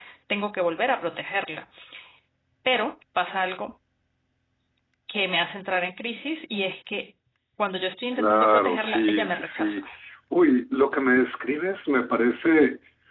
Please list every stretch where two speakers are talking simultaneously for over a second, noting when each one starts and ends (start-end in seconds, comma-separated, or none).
8.2-9.8